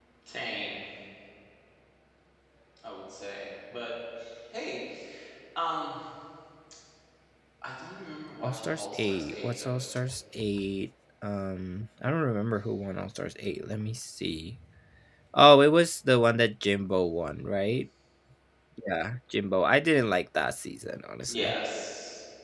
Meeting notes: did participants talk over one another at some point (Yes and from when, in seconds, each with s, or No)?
Yes, from 8.4 s